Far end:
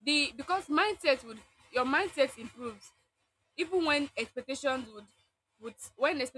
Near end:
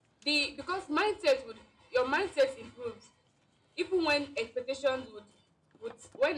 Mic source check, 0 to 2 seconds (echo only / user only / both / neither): echo only